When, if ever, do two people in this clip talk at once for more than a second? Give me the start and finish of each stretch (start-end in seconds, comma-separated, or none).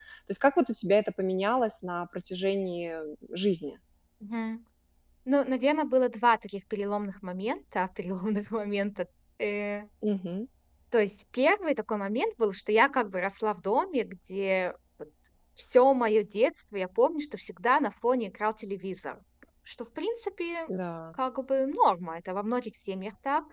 none